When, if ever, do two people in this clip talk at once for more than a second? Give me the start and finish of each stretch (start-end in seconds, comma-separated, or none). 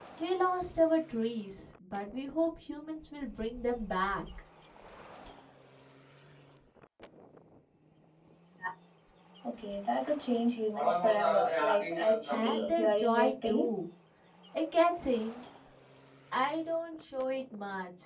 12.3-13.7